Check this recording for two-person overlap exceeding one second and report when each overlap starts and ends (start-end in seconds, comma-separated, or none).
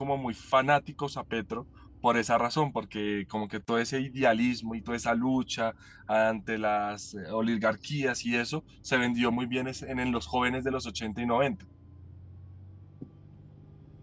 none